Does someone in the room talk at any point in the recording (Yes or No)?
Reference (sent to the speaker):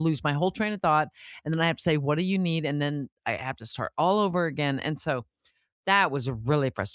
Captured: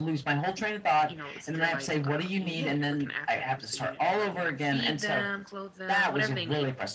Yes